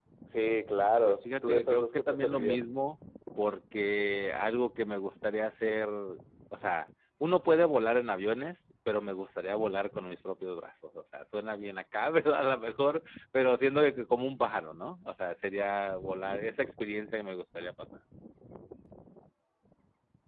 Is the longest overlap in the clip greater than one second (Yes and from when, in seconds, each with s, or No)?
Yes, from 1.0 s